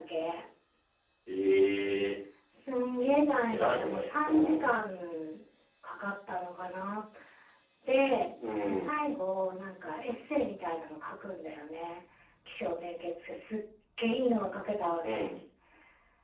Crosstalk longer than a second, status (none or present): present